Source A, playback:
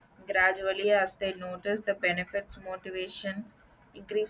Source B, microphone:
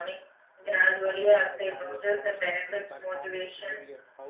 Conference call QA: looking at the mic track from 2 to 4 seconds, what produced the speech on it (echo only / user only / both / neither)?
both